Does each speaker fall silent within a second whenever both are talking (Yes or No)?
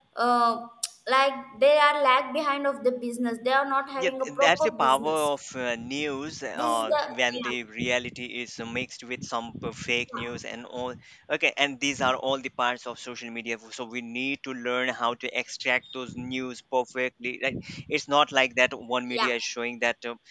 No